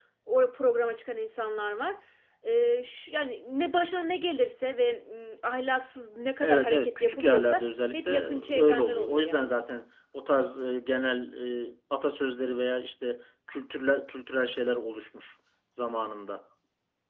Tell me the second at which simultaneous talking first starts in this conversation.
6 s

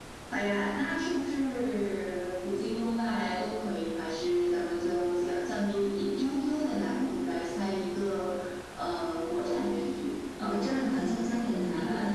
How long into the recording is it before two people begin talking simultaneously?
10 s

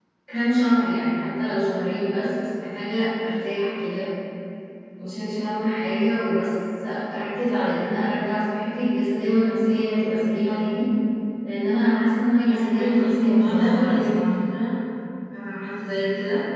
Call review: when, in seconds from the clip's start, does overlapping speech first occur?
12 s

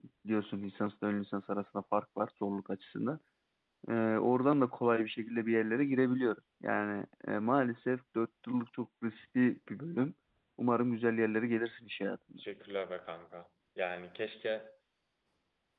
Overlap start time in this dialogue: none

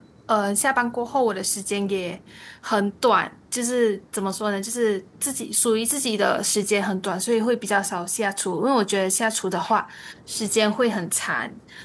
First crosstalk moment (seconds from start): none

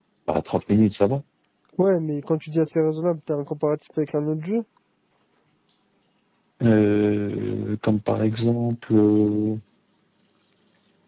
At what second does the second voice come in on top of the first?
none

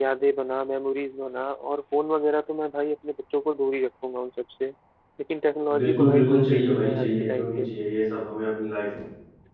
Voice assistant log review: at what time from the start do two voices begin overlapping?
6 s

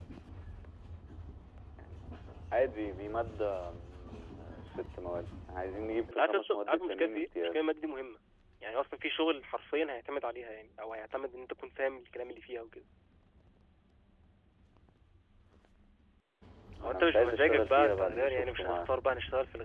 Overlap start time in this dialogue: 6 s

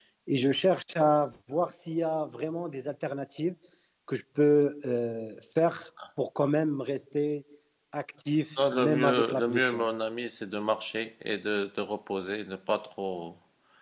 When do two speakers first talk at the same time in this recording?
9 s

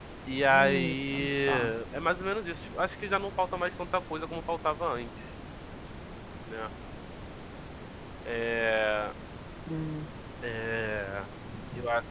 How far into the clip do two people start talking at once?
1 s

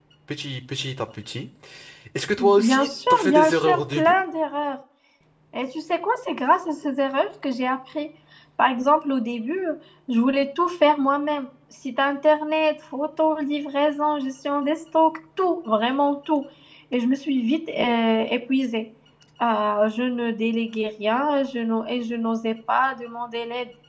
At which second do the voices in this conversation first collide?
3 s

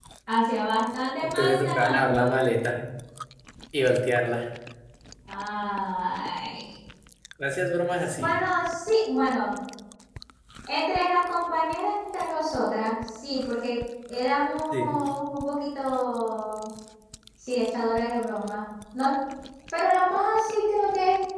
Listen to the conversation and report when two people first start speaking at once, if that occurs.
1 s

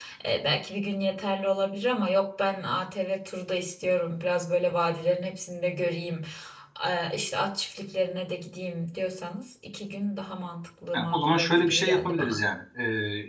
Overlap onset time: 11 s

